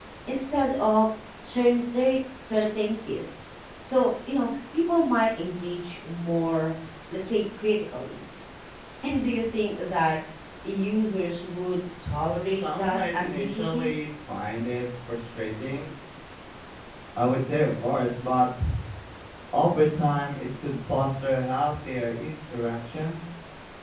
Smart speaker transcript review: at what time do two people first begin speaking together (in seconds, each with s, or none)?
12.5 s